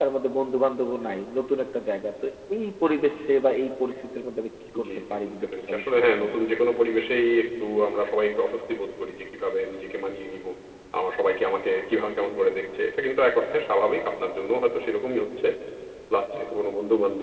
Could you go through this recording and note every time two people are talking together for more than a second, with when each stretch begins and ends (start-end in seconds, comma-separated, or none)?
4.8-6.4